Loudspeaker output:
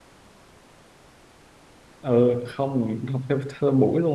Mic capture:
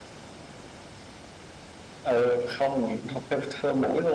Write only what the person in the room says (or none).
none